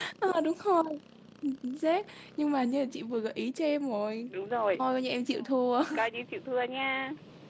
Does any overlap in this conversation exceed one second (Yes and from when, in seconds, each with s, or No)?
No